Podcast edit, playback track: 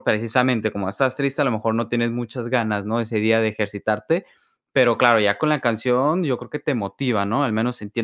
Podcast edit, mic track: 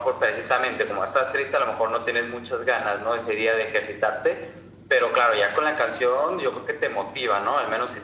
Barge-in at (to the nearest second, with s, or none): none